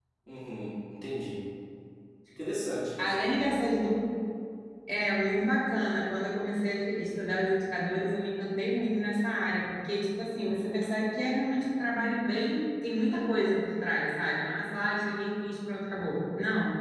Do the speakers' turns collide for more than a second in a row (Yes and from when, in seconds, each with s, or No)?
No